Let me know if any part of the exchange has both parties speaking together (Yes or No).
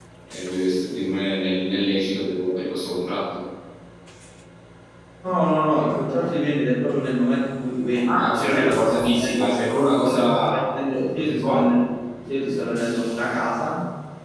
Yes